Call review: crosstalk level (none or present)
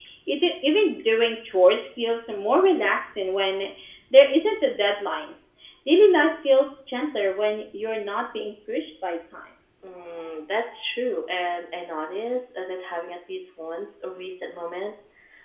none